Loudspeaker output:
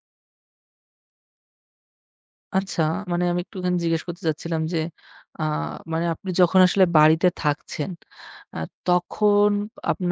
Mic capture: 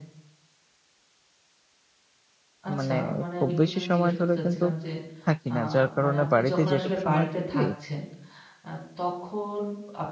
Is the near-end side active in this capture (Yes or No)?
Yes